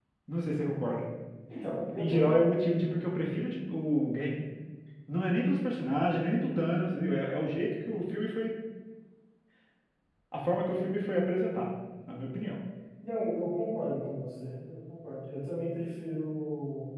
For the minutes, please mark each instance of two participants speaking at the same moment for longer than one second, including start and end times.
none

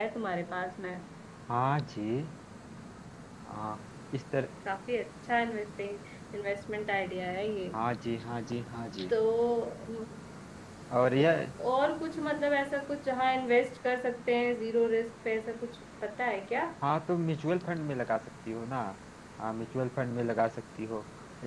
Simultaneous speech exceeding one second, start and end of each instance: none

